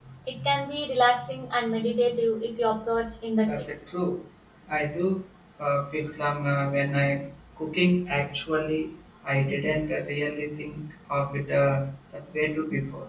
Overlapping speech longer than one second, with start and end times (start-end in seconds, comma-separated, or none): none